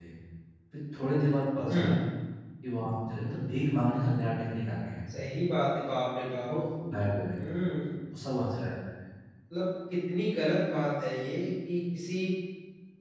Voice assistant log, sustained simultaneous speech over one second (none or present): none